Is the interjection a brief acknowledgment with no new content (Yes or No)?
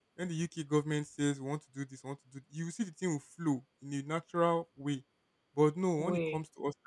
Yes